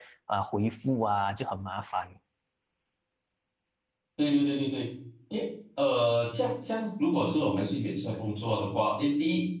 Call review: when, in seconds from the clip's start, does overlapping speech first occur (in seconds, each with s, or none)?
none